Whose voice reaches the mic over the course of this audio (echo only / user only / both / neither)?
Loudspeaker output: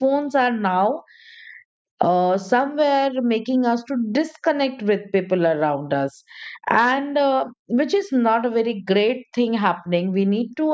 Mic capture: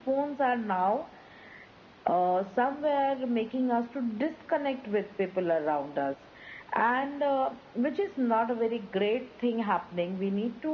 echo only